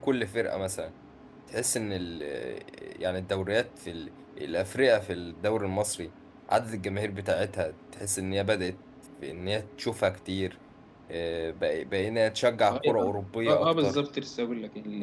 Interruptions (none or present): present